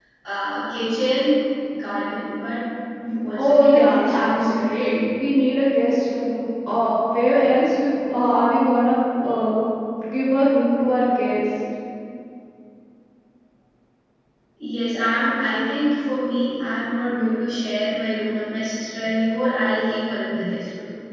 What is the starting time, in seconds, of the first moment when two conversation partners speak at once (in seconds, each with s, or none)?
3.4 s